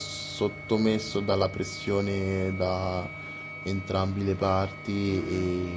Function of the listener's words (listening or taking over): taking over